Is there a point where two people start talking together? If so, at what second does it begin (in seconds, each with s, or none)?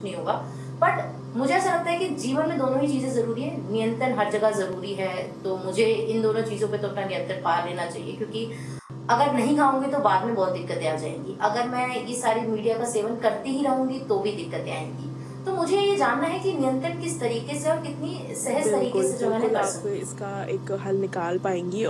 18.5 s